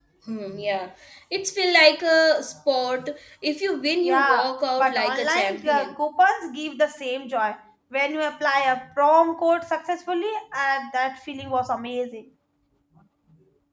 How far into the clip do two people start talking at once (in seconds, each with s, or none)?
4.0 s